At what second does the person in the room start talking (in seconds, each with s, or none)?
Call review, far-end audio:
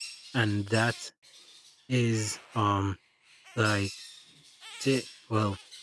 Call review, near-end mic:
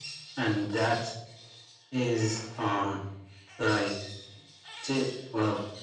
none